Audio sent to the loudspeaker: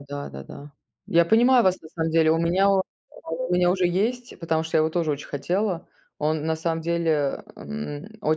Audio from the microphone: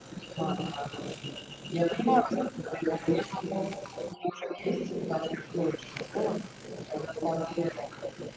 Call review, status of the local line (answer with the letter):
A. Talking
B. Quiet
B